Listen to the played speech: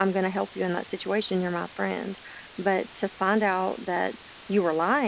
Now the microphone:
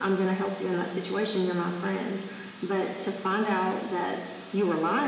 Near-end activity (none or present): none